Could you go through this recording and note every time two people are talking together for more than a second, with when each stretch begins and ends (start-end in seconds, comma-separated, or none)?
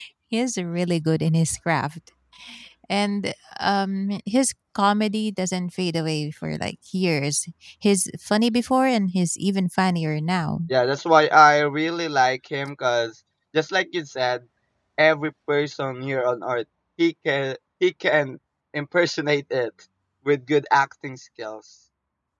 none